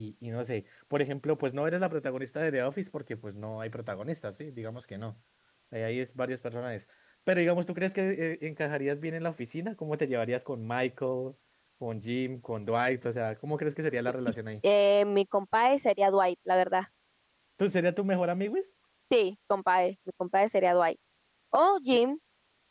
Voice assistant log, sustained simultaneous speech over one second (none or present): none